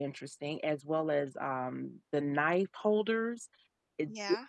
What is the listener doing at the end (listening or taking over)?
listening